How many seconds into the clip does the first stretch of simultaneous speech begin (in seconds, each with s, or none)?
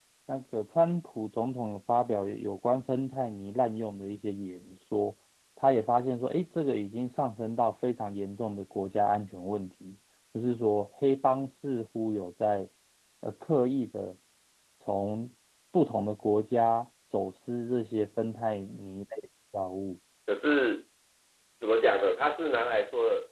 none